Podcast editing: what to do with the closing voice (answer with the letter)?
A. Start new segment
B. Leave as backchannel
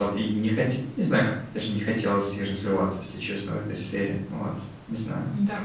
A